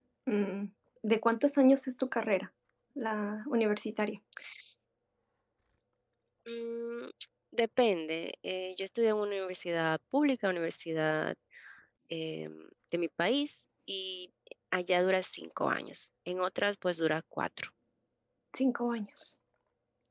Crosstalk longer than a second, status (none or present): none